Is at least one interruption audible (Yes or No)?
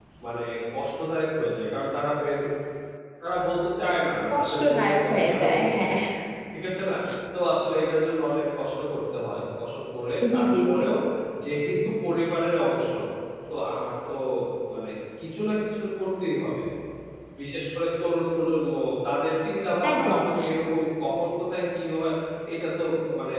Yes